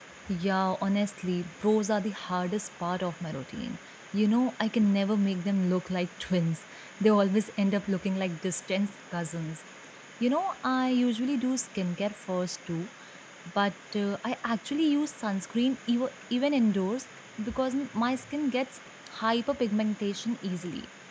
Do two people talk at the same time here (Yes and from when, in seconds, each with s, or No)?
No